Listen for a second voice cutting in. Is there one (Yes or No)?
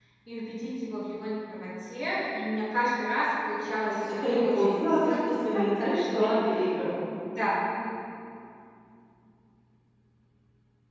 Yes